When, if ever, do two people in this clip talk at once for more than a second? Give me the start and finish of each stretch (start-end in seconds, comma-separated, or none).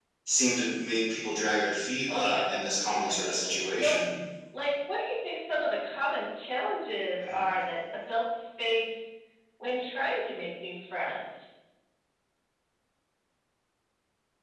2.1-4.0